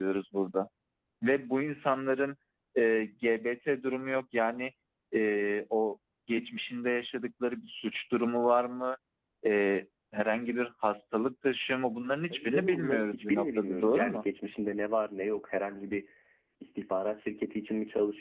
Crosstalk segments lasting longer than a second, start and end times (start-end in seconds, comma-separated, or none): 12.3-14.2